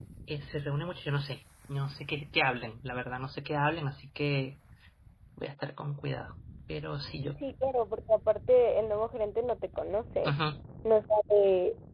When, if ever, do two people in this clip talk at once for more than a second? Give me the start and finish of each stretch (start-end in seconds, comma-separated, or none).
none